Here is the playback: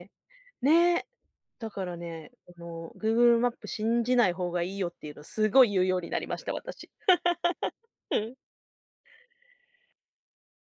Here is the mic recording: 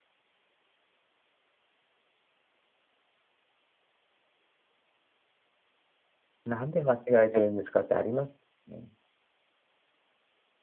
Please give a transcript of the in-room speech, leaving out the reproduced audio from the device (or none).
「なんで間違えてるんですか」ってありますね。